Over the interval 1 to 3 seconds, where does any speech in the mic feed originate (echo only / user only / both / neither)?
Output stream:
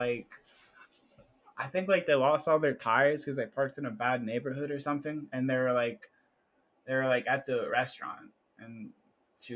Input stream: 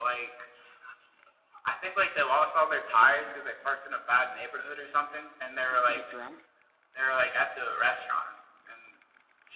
echo only